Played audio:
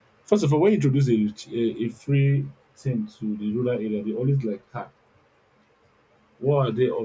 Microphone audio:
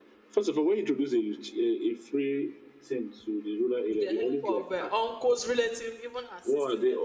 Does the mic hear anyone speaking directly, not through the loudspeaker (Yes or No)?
Yes